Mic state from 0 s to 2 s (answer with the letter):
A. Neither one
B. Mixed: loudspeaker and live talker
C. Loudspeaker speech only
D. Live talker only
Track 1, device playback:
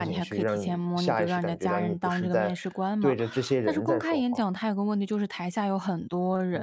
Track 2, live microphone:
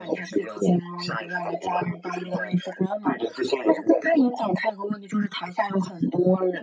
C